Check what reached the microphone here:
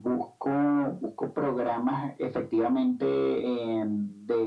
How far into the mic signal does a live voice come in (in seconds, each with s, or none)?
none